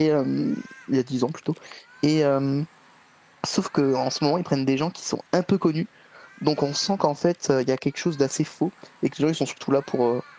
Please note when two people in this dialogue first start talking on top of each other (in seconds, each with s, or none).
none